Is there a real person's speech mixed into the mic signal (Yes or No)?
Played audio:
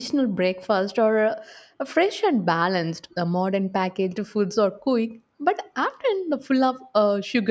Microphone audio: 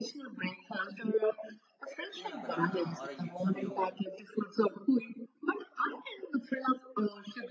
Yes